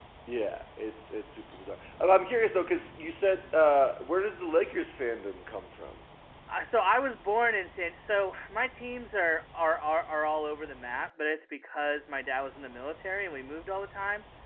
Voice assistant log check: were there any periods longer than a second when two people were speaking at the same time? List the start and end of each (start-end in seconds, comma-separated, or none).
none